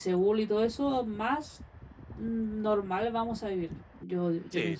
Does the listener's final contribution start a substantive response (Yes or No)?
Yes